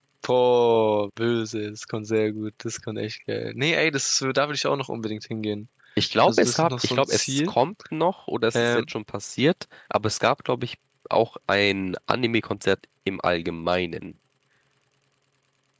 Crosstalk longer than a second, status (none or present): present